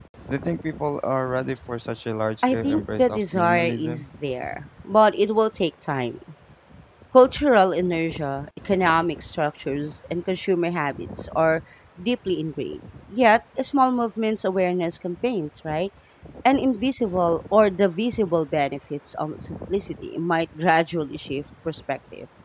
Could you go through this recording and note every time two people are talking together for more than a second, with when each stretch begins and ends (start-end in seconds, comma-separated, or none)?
2.4-4.1